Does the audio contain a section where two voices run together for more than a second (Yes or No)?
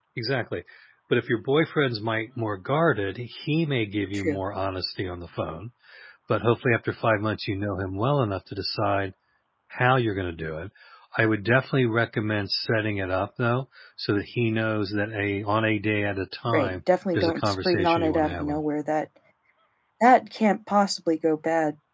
Yes